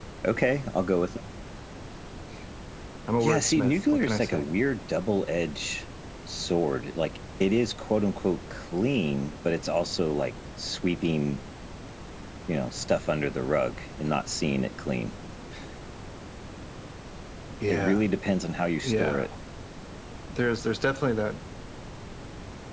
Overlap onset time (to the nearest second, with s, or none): 3 s